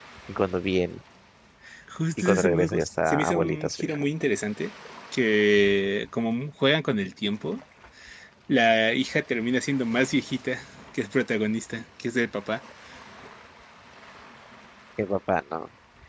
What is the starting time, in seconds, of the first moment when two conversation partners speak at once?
2.2 s

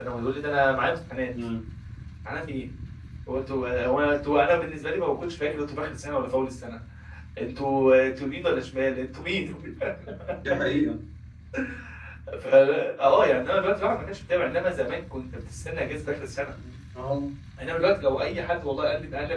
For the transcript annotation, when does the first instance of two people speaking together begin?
none

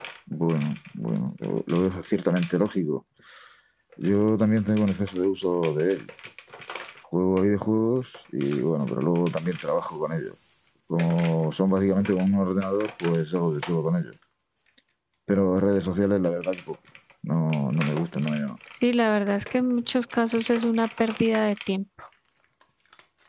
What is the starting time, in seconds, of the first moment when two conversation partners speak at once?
none

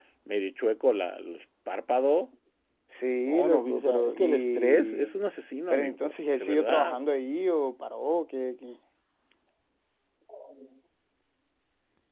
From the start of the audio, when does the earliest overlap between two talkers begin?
3.2 s

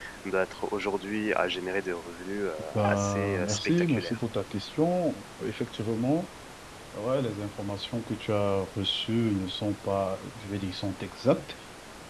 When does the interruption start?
2.7 s

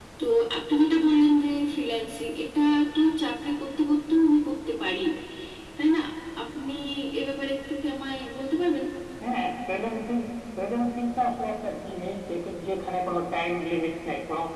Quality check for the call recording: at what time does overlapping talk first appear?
none

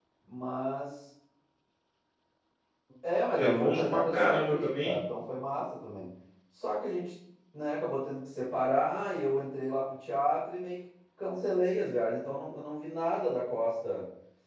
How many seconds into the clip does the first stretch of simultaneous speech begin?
3.4 s

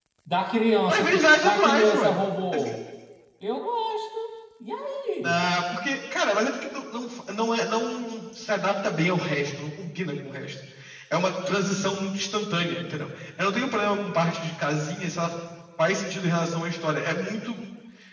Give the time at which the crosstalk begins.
0.9 s

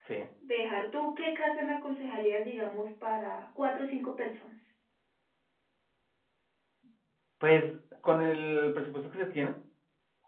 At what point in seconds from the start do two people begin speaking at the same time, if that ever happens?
none

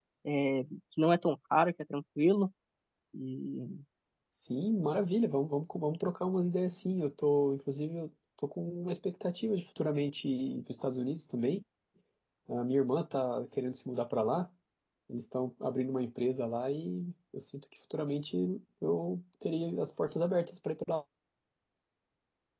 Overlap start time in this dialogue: none

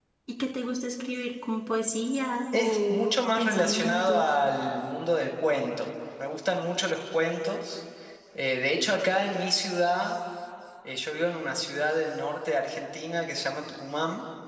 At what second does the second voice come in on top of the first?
2.5 s

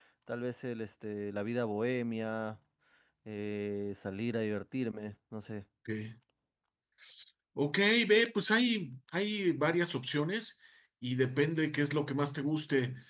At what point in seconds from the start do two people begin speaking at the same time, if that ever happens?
none

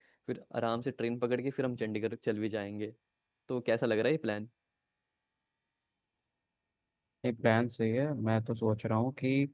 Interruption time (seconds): none

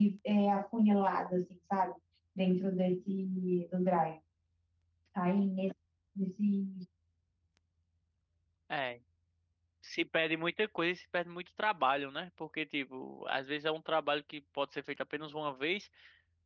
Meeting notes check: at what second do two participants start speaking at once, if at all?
none

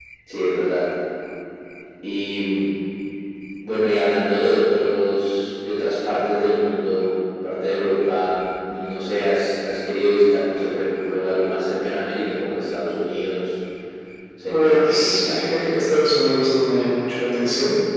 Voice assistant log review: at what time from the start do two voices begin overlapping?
14.5 s

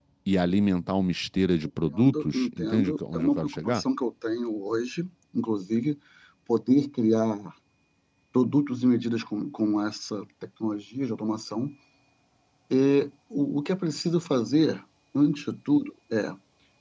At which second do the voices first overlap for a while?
1.8 s

